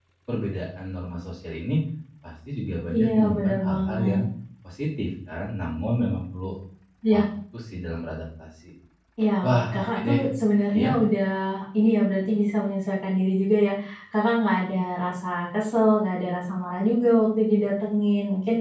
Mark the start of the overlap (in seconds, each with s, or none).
2.9 s